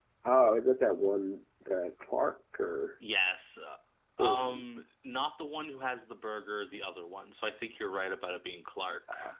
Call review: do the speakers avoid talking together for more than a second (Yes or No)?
Yes